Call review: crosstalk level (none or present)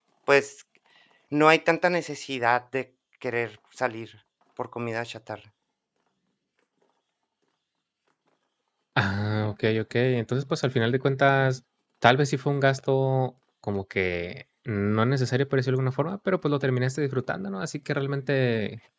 none